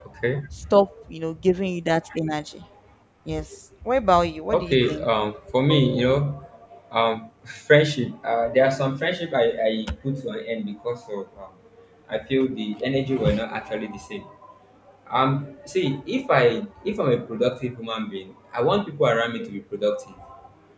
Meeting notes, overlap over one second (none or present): none